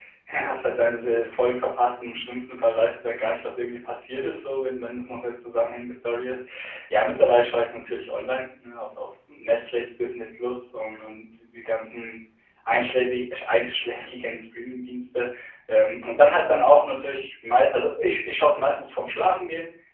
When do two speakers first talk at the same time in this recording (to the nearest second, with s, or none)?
none